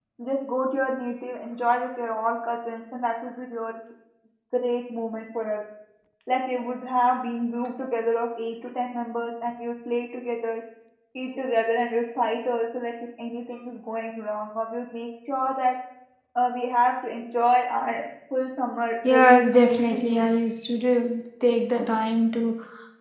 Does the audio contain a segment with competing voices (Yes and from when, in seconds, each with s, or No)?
Yes, from 19.0 s